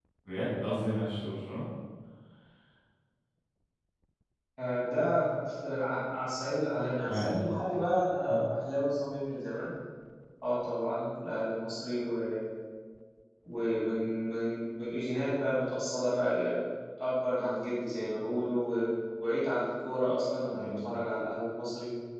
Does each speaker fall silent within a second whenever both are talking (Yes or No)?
Yes